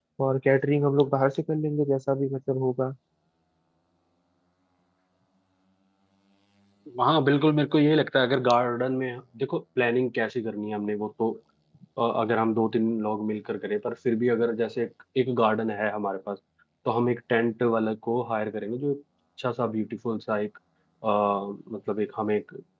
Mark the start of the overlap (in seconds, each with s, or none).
none